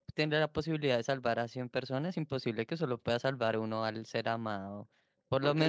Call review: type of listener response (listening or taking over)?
taking over